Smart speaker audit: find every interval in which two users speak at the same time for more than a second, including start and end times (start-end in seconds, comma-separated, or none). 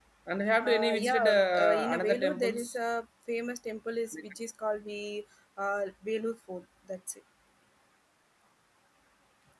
0.6-2.8